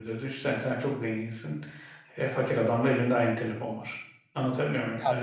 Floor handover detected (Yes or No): Yes